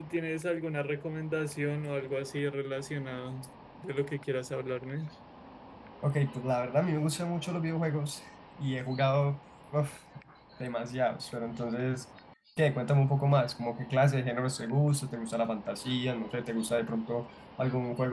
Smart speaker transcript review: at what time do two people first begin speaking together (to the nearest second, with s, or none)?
none